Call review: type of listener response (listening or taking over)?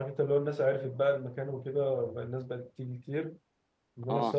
listening